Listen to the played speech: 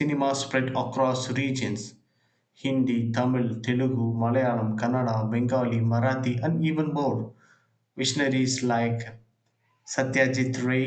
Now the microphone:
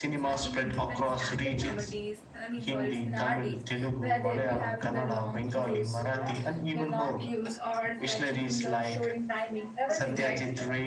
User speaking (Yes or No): Yes